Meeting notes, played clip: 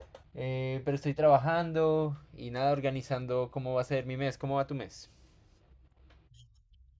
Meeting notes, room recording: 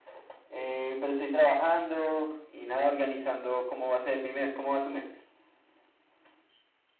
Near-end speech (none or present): none